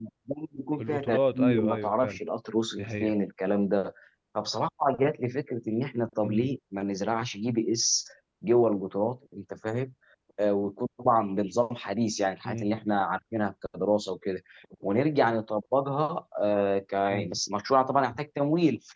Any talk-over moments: Yes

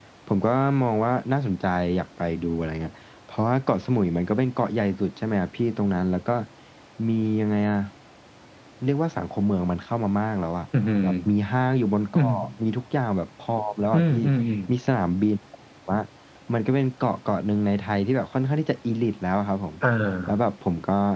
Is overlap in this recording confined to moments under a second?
Yes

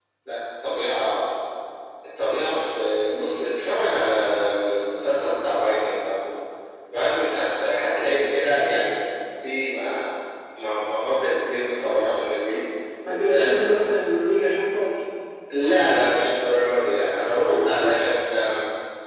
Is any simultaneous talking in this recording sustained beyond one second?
No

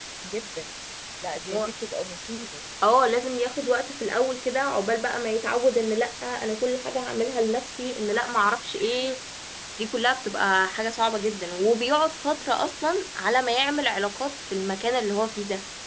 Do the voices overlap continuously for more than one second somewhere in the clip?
No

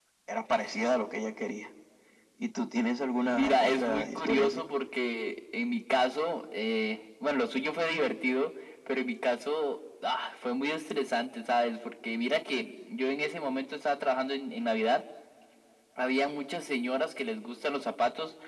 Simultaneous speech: Yes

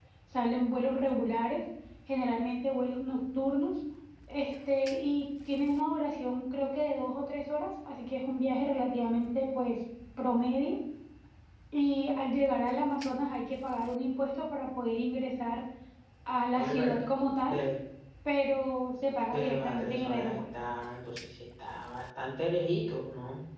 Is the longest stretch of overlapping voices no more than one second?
No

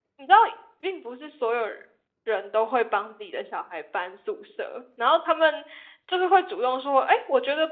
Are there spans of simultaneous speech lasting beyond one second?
No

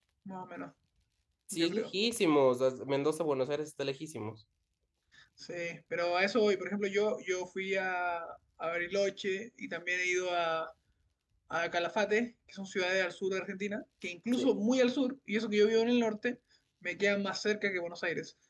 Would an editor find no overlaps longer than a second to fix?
Yes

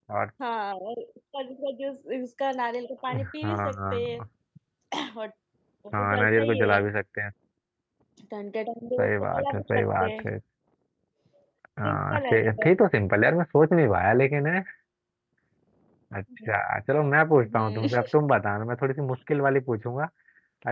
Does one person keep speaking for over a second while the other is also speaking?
Yes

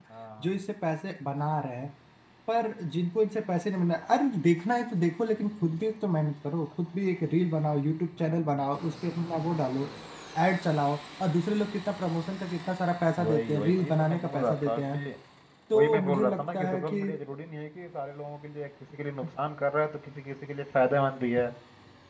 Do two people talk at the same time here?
Yes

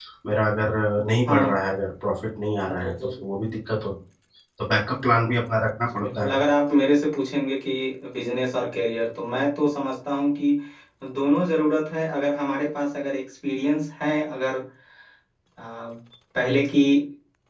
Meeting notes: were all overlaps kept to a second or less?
Yes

